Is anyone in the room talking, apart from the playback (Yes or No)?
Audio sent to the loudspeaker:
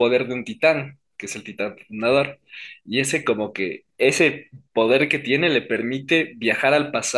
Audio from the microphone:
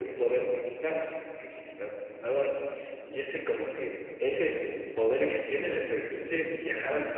No